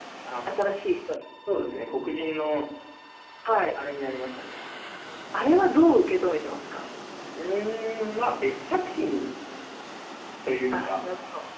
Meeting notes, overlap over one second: none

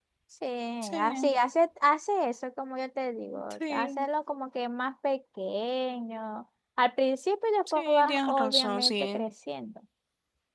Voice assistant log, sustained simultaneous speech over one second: present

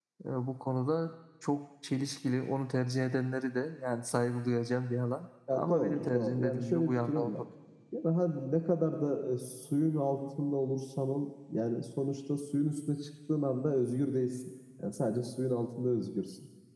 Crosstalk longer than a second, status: present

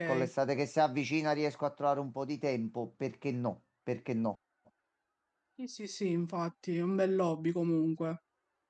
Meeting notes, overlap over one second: none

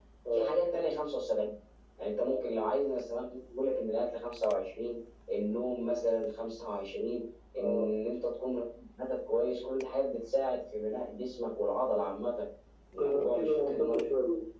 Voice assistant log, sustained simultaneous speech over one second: present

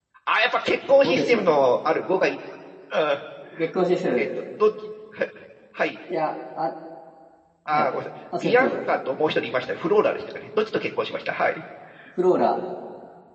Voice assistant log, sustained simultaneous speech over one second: none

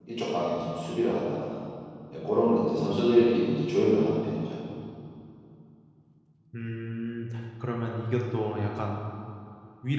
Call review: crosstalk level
none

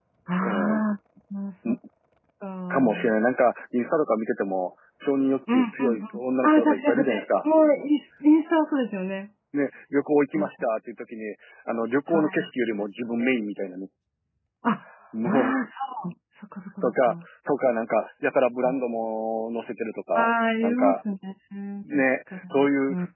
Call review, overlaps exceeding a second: present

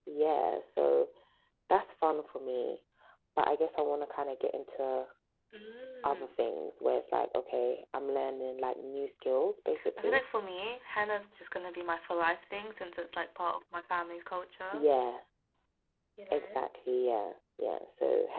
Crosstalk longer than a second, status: none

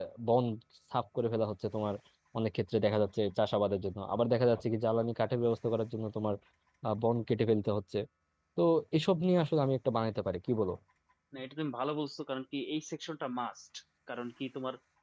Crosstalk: none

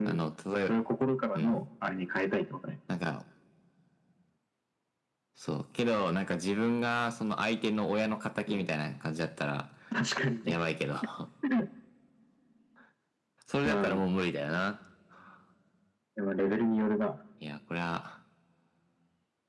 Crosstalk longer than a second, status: none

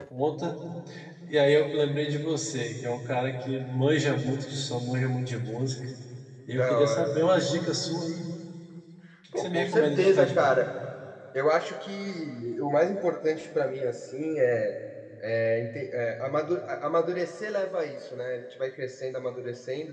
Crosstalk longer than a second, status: present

